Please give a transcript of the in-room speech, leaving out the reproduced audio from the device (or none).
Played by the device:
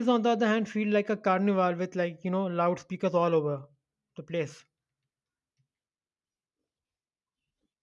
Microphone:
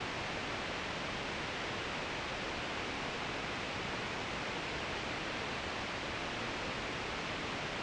none